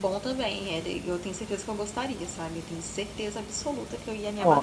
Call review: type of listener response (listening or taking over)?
taking over